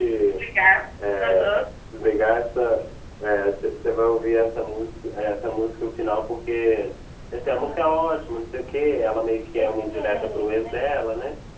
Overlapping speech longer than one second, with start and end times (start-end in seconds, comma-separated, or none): 9.6-10.9